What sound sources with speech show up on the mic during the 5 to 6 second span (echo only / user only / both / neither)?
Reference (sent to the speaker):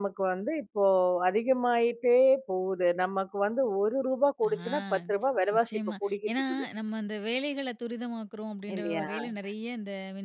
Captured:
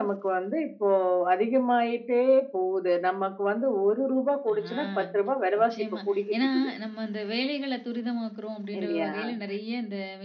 echo only